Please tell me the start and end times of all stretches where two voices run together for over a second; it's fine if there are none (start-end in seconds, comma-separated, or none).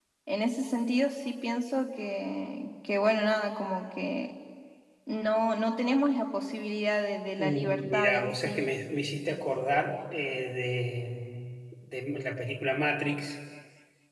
7.4-8.6